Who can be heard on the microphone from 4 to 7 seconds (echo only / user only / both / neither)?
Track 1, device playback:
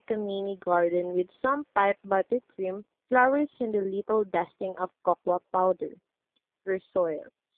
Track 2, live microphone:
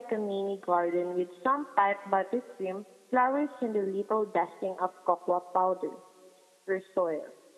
echo only